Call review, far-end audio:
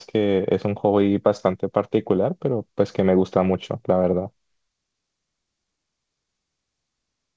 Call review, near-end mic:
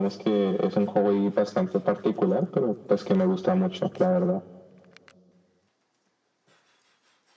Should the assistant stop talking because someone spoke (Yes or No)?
No